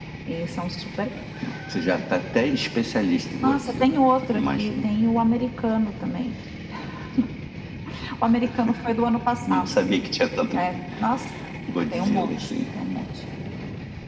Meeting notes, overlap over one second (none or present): present